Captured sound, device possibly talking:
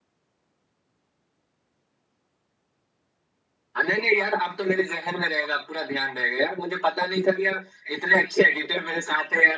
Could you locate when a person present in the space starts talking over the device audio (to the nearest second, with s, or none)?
none